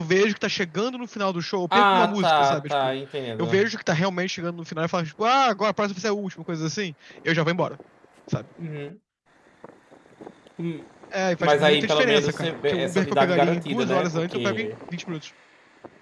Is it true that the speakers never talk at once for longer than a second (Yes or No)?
No